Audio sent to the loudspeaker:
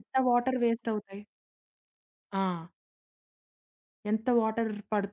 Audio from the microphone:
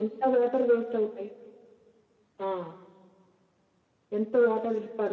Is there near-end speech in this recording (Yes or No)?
No